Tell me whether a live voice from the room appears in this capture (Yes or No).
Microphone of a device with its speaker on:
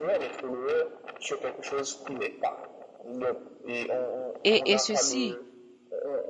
Yes